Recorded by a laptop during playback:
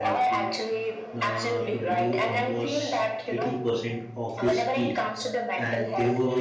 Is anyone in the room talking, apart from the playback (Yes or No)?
Yes